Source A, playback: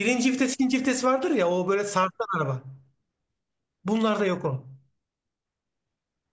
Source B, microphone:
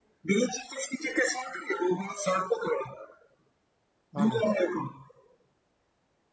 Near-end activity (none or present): present